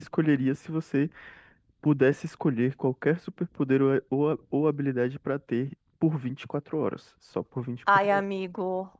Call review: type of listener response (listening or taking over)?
taking over